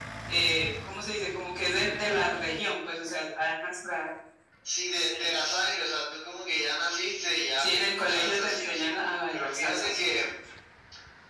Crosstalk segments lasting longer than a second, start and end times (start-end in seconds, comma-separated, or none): 7.6-10.3